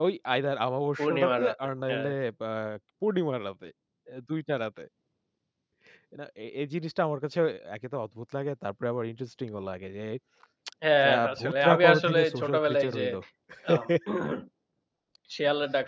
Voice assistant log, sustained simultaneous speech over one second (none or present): present